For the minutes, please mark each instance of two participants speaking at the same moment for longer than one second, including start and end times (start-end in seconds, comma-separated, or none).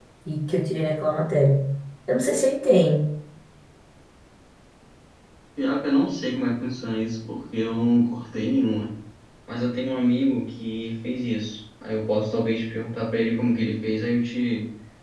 none